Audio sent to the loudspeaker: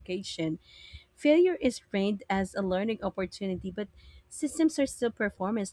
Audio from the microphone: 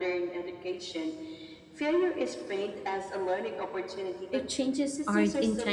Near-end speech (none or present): present